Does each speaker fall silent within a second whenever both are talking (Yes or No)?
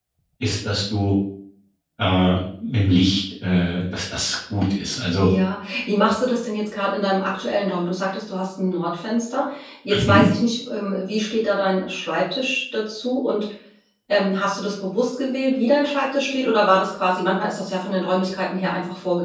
Yes